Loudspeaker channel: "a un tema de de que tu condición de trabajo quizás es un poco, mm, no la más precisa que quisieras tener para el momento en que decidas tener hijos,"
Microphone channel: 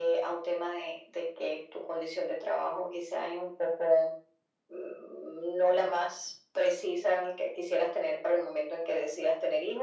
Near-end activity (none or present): none